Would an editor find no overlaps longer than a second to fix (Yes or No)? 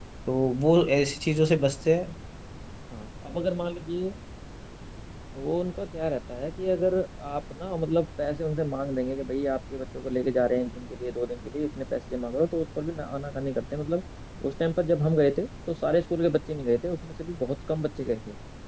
Yes